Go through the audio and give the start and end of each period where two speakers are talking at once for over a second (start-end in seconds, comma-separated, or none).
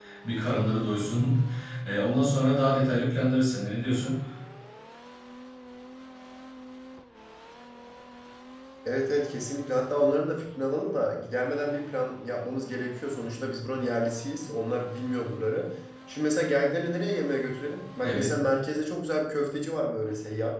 none